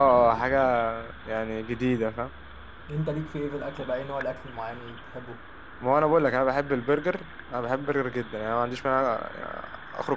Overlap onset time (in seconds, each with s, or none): none